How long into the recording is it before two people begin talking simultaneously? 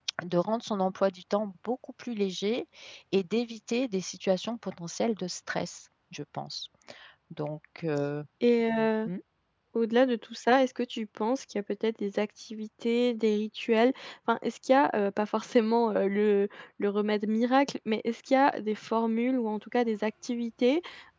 none

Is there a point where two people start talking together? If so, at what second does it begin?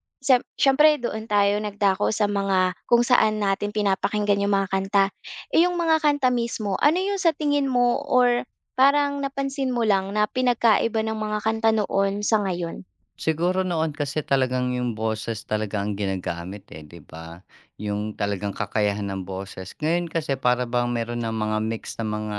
none

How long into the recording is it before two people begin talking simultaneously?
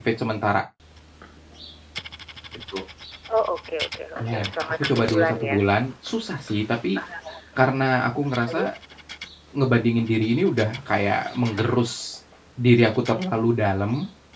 4.2 s

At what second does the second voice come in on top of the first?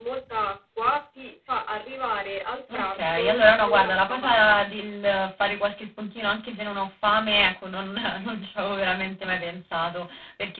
2.7 s

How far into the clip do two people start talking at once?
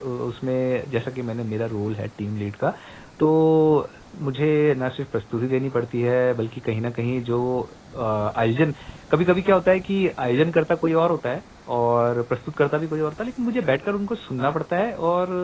none

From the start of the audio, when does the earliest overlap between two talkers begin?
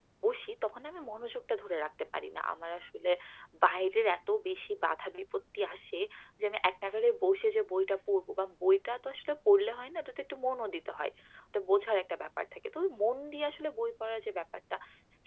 none

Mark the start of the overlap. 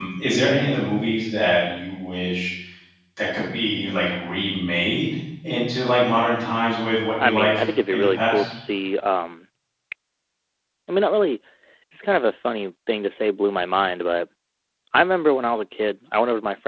7.2 s

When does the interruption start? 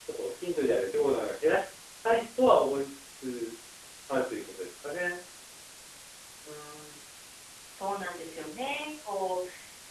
none

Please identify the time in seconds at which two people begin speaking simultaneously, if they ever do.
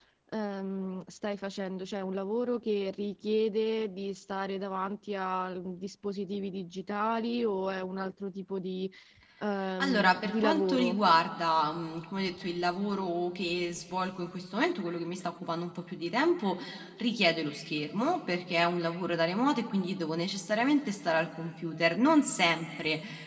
9.8 s

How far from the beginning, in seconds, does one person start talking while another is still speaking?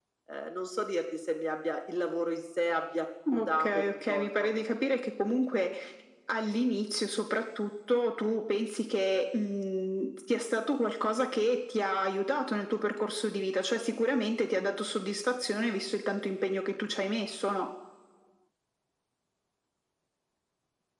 3.3 s

